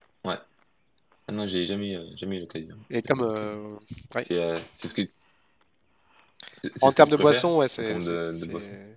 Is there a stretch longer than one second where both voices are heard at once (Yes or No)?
Yes